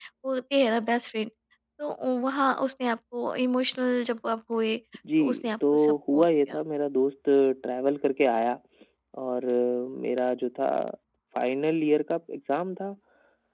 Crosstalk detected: Yes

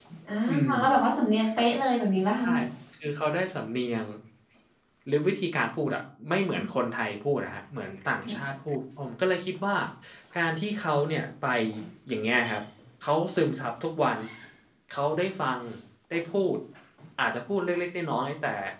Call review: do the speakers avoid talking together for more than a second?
Yes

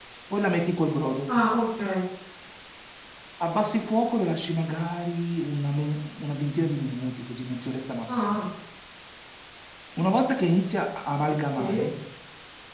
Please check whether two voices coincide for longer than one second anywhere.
No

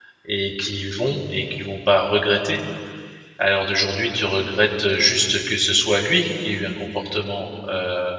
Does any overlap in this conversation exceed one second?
No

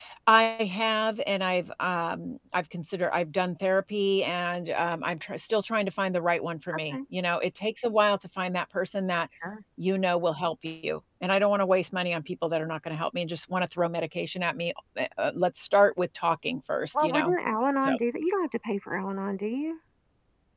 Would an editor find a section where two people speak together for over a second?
No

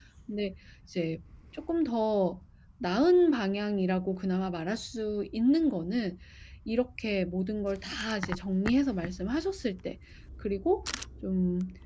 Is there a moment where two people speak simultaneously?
No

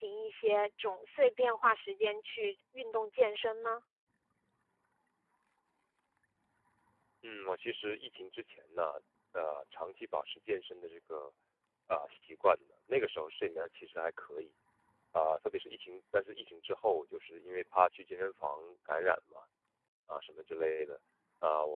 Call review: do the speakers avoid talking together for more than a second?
Yes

